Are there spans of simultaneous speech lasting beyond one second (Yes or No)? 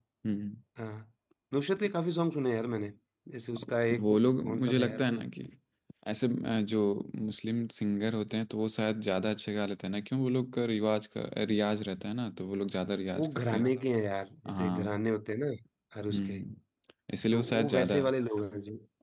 Yes